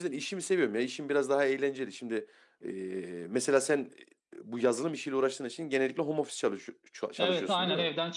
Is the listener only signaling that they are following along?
No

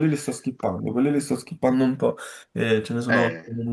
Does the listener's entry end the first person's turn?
No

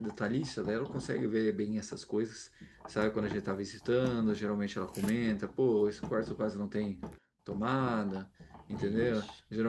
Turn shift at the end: No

